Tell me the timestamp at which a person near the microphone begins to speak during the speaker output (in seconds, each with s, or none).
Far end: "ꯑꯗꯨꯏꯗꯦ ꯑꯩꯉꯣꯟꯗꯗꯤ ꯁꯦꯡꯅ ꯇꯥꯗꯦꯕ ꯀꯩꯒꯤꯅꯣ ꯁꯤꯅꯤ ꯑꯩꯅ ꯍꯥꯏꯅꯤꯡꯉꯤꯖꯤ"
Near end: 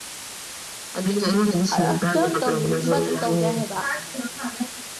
1.7 s